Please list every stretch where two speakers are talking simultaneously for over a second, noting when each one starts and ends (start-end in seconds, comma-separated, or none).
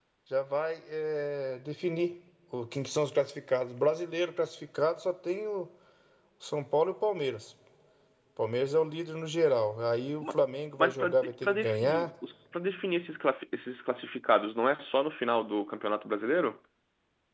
10.8-12.1